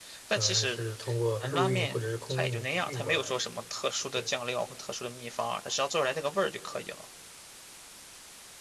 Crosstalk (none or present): present